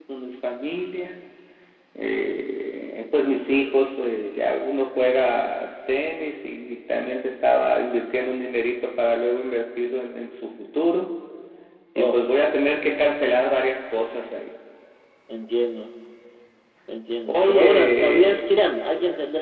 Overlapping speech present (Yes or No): Yes